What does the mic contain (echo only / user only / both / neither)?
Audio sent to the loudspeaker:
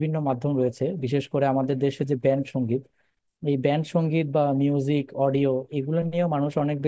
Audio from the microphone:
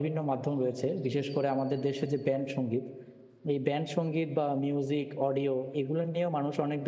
echo only